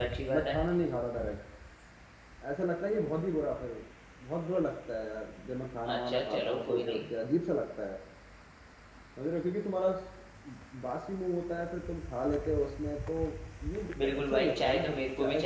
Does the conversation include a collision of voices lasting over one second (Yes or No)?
Yes